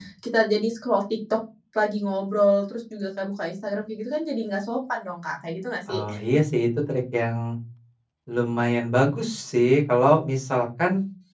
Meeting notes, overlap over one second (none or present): none